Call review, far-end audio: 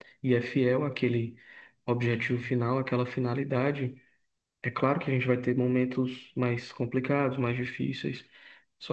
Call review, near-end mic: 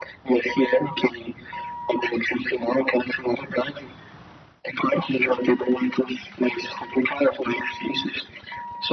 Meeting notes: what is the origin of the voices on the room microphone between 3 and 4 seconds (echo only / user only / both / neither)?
echo only